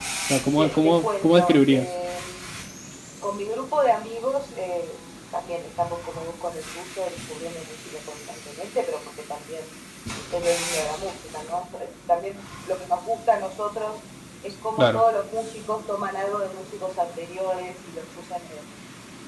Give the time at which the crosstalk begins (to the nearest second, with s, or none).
1 s